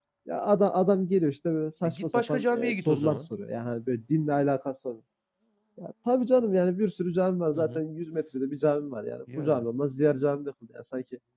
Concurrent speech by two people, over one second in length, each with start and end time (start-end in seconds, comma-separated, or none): 1.8-3.3